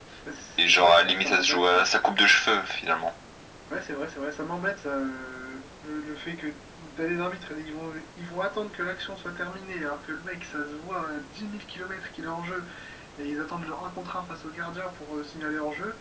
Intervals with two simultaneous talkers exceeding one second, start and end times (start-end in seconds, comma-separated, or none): 0.6-1.8